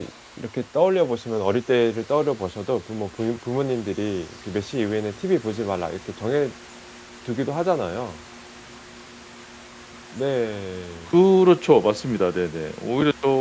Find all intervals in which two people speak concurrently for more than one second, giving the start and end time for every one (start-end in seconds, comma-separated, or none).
none